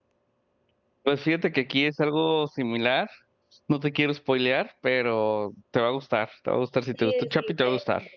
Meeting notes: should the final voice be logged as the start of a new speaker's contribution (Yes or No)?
Yes